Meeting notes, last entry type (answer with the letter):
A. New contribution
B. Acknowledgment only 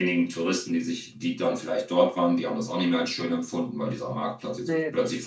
B